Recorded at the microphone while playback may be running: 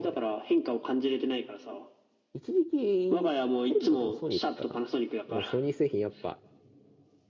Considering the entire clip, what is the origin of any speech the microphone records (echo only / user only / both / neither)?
both